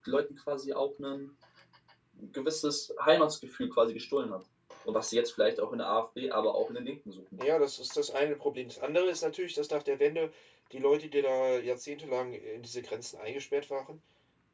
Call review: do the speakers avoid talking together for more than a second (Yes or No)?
Yes